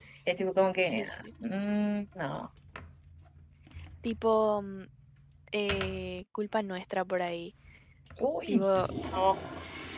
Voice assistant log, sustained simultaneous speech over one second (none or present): none